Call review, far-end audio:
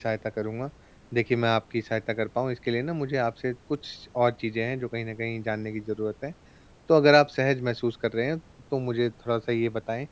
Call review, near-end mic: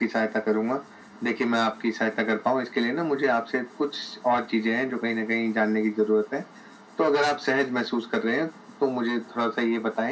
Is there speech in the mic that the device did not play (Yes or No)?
No